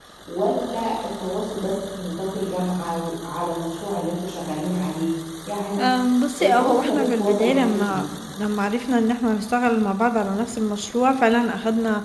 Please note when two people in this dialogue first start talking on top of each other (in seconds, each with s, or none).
6.4 s